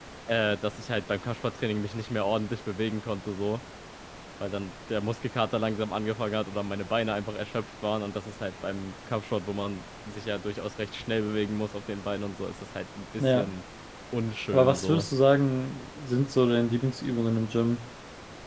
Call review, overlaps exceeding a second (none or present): none